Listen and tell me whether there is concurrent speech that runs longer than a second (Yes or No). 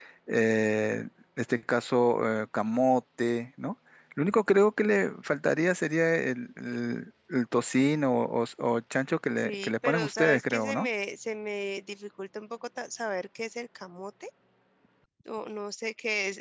Yes